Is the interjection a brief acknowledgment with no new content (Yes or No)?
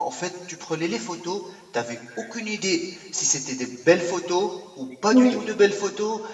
Yes